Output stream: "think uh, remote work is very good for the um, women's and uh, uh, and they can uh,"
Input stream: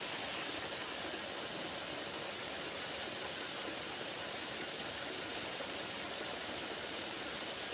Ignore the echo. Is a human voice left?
No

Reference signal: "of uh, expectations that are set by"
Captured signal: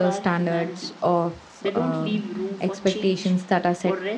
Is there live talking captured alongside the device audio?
Yes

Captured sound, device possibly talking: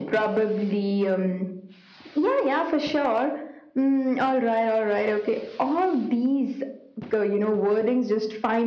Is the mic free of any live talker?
Yes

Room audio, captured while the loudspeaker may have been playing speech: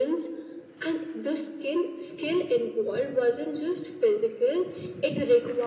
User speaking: No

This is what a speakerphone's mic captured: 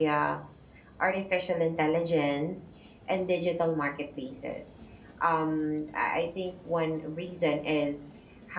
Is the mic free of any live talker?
No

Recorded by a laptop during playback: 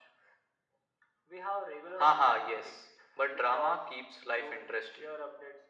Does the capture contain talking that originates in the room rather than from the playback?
No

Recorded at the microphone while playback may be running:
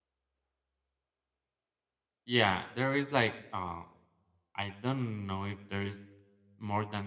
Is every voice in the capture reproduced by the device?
No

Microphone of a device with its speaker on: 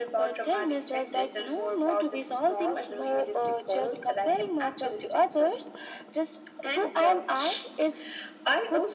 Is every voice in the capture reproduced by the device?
Yes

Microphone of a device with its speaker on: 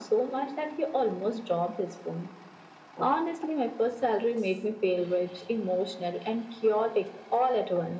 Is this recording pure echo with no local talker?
Yes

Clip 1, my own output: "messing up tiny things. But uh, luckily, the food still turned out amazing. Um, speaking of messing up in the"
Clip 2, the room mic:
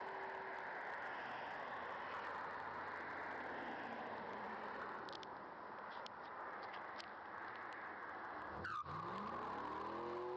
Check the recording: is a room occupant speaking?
No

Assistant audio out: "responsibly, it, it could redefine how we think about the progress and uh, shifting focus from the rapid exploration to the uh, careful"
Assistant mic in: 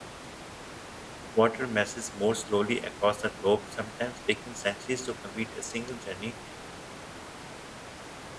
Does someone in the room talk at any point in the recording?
Yes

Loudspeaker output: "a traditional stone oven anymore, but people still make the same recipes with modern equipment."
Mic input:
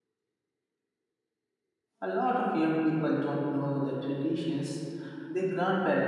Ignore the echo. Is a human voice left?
Yes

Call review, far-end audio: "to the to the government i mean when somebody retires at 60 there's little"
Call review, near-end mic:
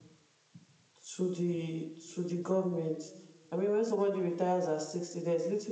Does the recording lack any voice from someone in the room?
Yes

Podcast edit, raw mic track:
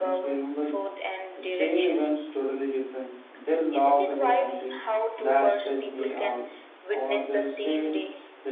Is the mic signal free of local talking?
No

